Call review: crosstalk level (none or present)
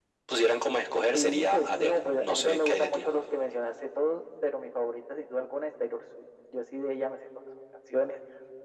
present